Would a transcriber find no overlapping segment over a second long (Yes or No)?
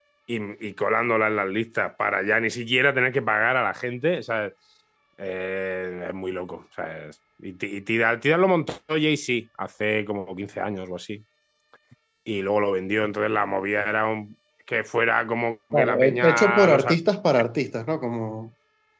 No